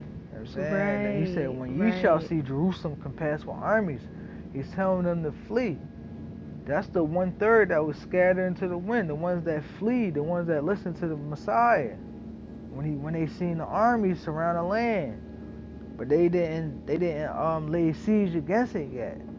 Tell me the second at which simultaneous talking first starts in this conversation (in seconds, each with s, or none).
0.6 s